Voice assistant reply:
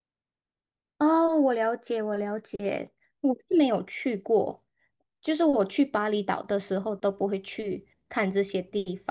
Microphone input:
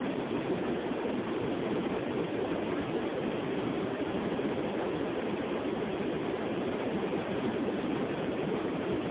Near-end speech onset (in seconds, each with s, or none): none